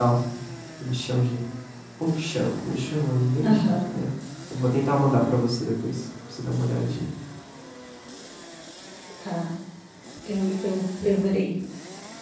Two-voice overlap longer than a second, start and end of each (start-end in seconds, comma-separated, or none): none